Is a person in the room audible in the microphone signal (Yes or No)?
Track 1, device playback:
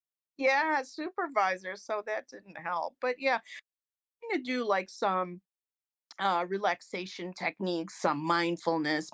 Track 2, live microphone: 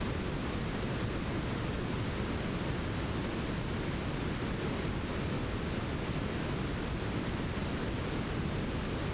No